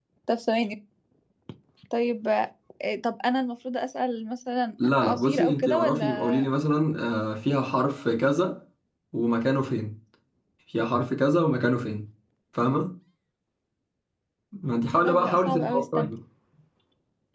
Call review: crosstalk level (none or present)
present